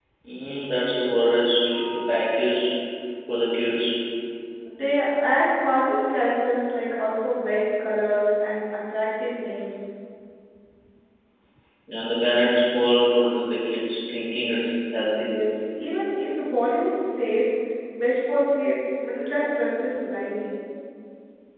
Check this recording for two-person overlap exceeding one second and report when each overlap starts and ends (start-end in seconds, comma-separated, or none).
none